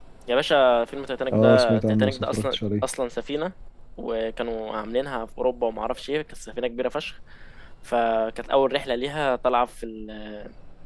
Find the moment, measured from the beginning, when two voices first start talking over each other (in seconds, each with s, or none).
1.3 s